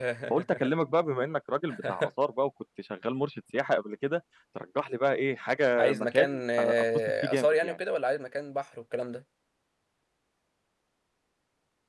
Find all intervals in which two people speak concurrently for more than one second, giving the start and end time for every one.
5.8-7.8

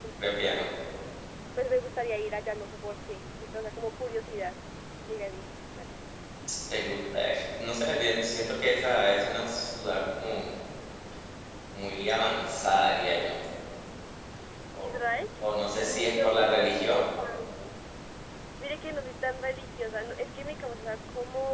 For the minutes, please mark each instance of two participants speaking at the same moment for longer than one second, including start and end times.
15.8-17.1

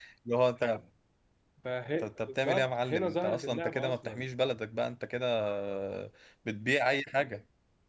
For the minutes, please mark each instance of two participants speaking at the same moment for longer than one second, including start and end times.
2.0-4.3

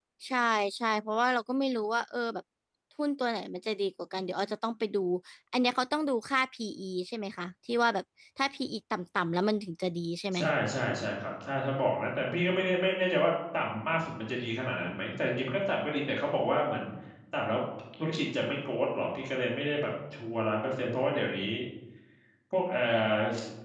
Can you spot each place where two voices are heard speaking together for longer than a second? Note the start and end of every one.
none

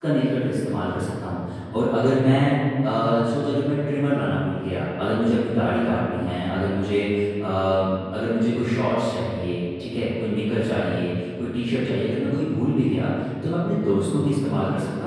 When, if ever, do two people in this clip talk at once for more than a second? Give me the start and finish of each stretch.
none

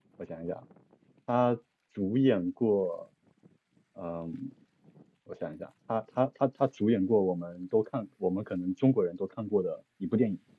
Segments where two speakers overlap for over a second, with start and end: none

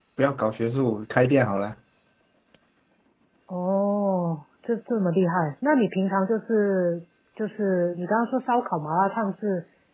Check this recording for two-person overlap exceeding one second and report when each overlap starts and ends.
none

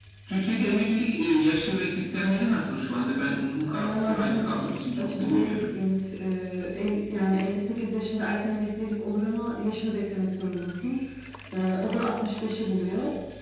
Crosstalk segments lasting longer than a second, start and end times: 3.7-5.7

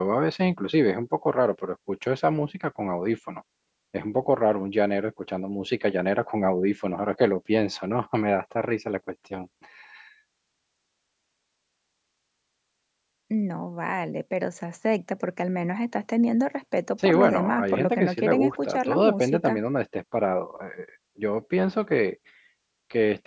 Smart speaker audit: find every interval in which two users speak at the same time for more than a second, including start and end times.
17.0-19.6

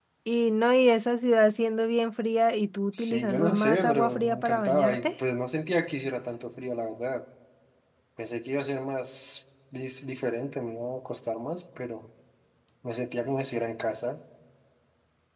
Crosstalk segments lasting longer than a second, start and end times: 3.0-5.1

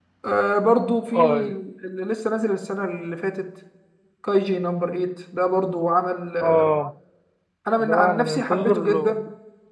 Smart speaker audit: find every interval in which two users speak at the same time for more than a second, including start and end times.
7.8-9.0

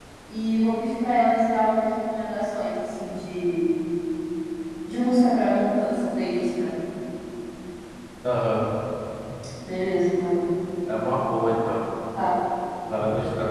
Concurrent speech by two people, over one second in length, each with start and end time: none

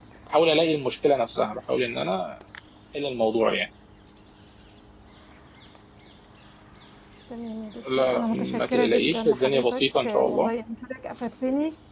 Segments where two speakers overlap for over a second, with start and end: 8.0-10.5

